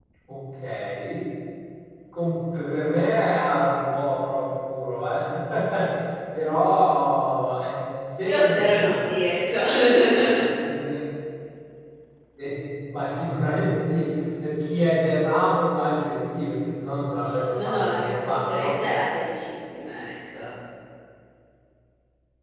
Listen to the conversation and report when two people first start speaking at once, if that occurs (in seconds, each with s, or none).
8.2 s